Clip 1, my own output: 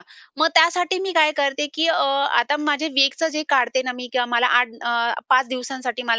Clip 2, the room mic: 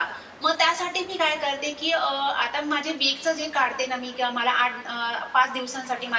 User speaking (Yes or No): No